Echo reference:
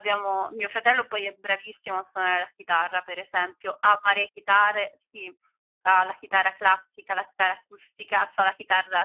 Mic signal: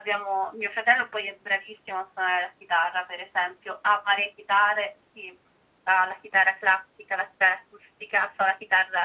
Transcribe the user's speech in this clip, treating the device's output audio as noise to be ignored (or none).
none